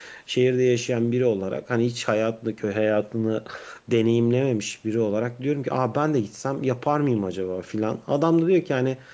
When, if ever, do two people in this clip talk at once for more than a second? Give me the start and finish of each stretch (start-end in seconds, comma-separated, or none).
none